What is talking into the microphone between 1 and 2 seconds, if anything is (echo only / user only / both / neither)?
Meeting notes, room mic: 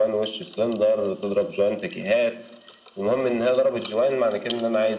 echo only